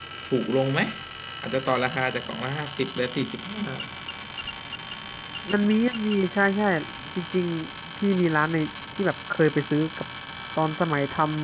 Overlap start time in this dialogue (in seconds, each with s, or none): none